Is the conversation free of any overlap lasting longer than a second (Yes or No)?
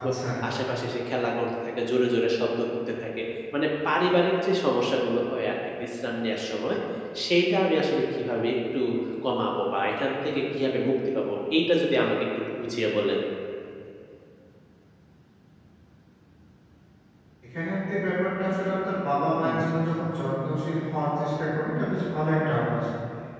Yes